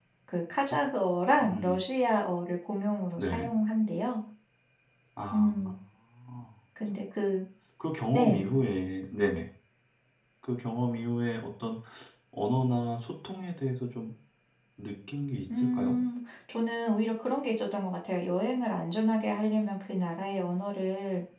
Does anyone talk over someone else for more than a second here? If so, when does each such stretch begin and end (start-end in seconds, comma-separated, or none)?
none